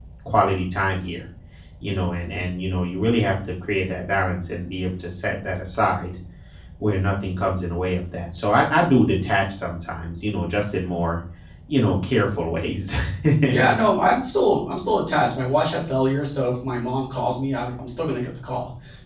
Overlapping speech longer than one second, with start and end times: none

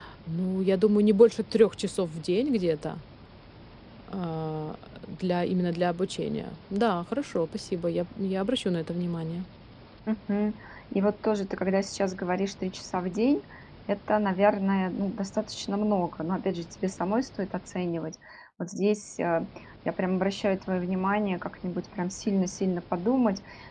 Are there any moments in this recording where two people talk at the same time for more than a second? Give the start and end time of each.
none

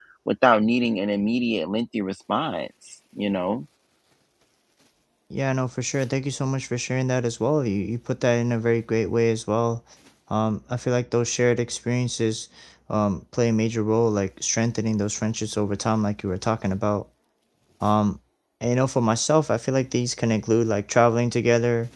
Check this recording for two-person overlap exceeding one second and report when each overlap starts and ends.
none

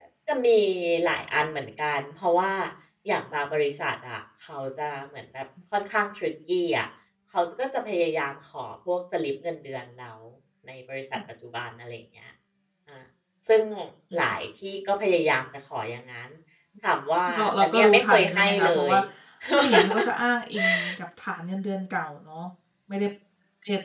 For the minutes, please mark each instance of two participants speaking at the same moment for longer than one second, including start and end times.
17.3-18.9

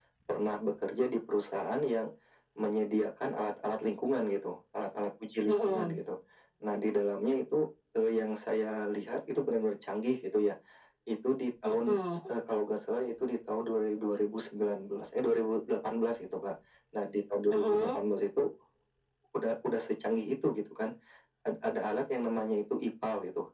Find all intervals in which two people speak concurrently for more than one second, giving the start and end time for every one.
none

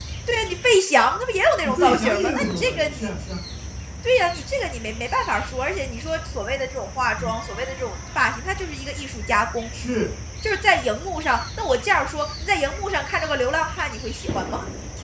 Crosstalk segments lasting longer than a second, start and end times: 1.8-3.1

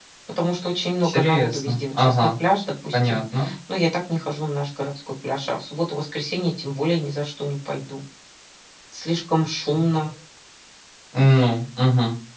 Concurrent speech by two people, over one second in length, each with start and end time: 1.0-2.3

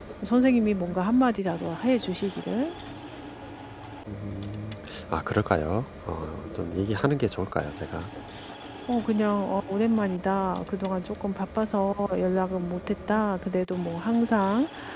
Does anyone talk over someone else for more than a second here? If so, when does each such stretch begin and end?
none

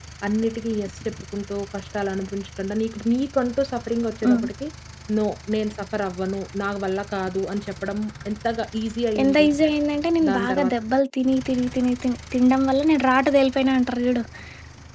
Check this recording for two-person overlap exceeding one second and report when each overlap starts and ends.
none

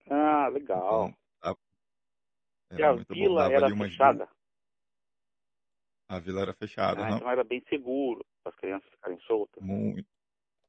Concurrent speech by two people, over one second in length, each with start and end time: 2.8-4.2

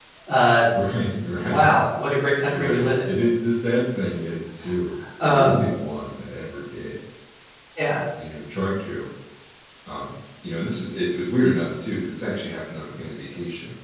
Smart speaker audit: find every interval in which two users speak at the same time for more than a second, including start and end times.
none

